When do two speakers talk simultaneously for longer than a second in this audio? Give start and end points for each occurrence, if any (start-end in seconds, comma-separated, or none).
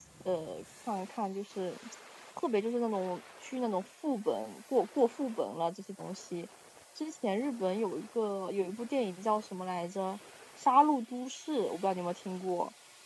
none